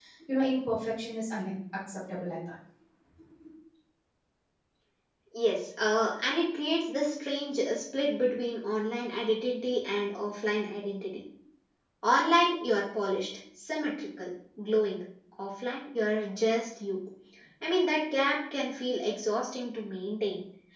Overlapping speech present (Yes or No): No